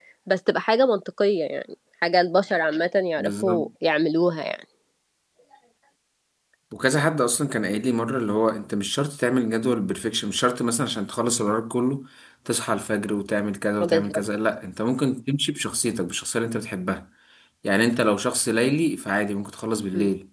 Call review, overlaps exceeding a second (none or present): none